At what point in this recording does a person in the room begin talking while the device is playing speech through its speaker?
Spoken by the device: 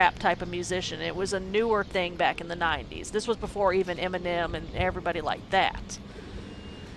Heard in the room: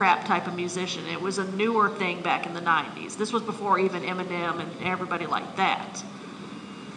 none

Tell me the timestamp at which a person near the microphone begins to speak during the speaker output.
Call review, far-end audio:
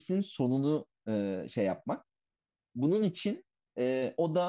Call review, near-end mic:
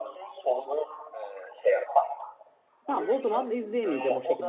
2.9 s

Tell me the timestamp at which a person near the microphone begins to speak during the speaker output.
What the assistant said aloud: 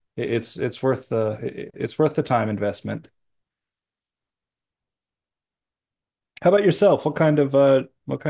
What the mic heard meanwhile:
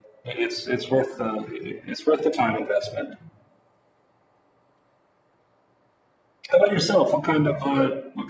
none

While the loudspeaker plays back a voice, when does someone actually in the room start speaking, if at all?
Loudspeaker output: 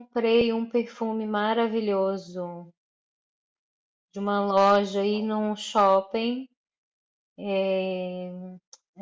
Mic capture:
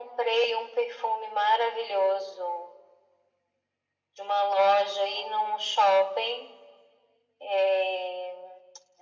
none

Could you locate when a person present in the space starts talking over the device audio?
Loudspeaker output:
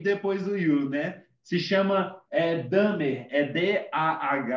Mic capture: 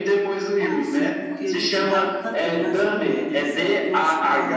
0.6 s

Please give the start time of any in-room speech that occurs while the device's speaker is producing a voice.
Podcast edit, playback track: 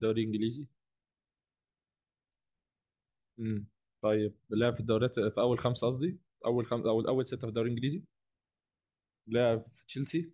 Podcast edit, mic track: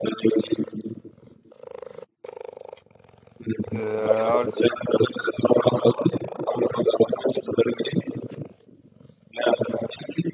3.7 s

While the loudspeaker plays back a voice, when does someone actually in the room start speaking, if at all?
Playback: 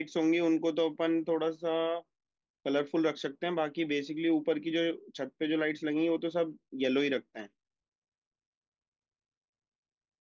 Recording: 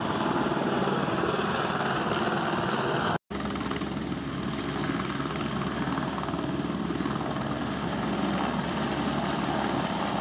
none

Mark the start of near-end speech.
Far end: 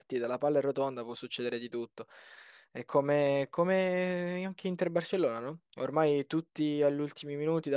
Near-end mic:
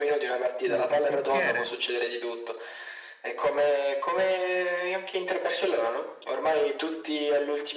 0.6 s

